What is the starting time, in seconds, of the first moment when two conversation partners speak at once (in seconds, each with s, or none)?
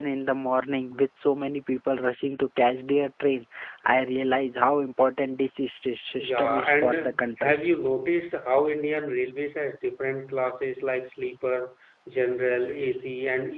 6.2 s